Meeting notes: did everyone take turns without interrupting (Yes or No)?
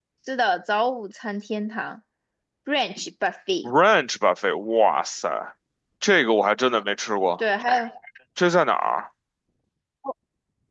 Yes